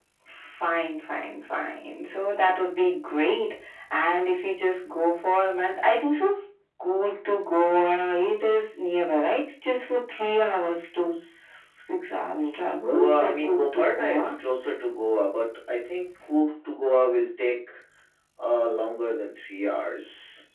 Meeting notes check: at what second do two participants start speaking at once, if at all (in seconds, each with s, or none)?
12.3 s